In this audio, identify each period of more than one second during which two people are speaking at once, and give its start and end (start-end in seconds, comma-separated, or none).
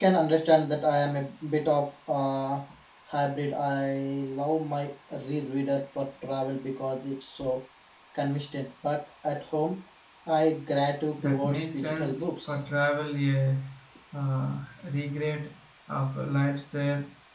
11.2-12.5